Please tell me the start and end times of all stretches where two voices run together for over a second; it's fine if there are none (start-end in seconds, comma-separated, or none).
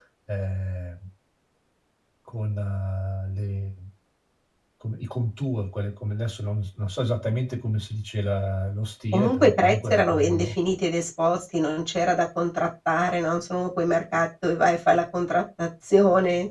9.1-10.5